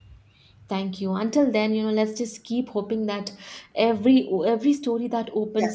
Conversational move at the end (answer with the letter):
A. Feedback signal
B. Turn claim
A